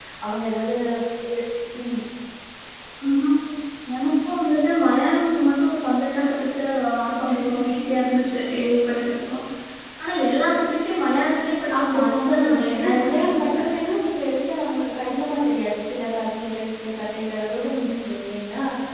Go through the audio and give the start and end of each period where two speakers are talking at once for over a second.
11.8-13.6

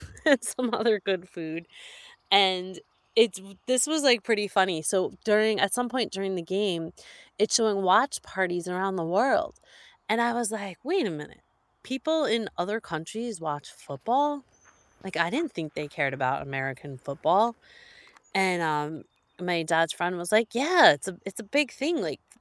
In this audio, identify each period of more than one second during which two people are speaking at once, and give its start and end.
none

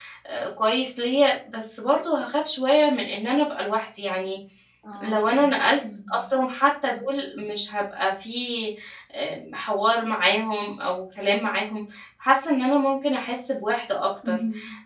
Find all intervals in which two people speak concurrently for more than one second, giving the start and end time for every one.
none

